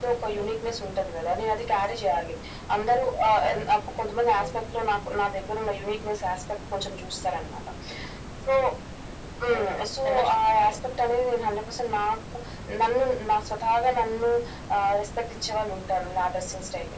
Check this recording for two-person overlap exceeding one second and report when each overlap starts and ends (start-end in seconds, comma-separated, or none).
9.5-10.8